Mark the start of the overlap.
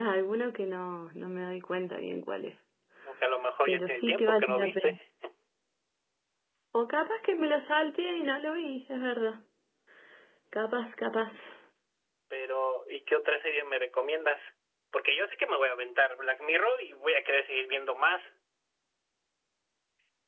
3.6 s

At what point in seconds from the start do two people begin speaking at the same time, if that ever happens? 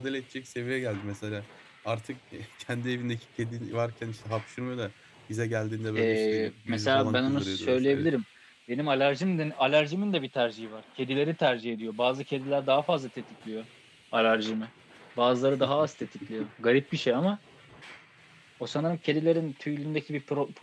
6.0 s

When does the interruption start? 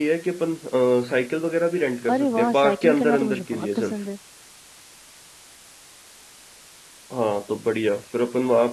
2.0 s

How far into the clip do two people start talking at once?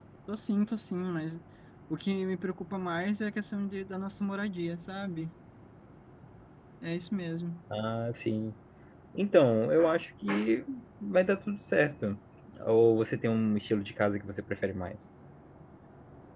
none

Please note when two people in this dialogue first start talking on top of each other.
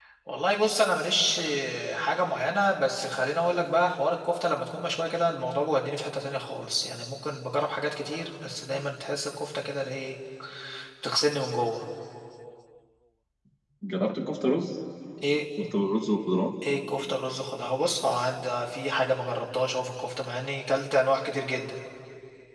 none

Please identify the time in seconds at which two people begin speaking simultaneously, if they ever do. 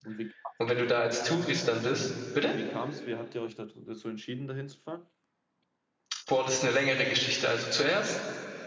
none

